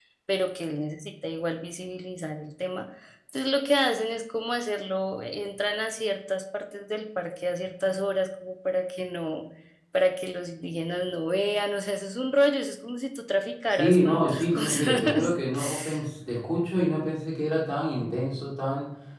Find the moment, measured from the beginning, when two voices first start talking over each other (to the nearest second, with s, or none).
14 s